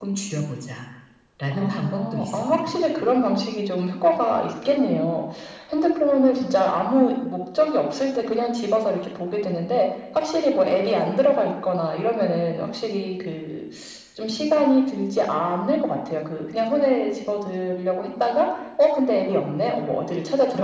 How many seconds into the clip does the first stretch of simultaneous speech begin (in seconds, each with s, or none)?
1.5 s